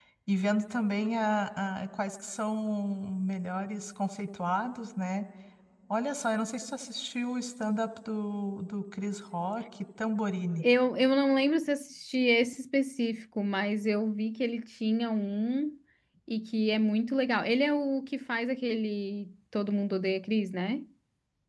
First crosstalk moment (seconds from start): none

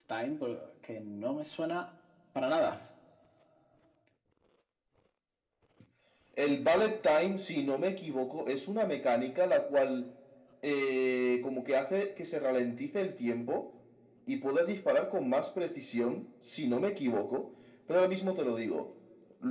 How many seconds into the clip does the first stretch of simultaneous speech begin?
none

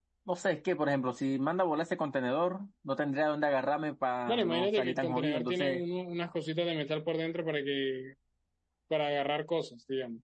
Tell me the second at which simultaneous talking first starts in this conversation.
4.3 s

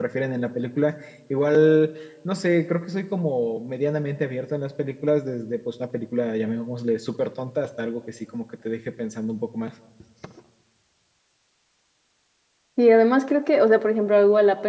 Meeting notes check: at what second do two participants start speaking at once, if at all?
none

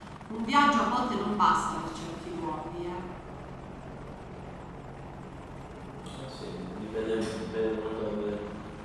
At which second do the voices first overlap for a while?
none

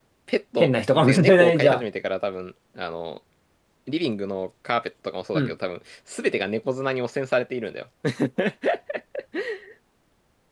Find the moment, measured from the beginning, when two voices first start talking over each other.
0.6 s

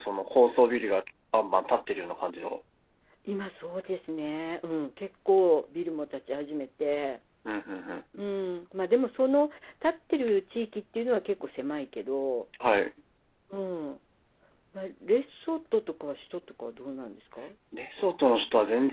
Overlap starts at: none

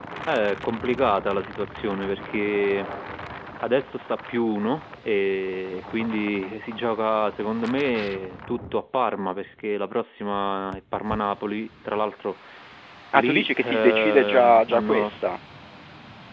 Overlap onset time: 13.1 s

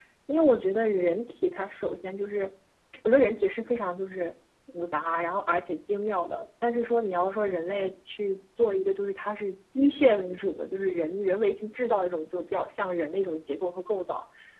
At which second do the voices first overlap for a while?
none

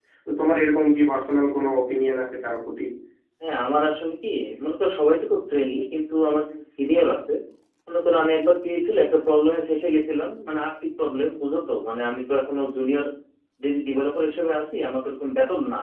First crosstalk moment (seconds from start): none

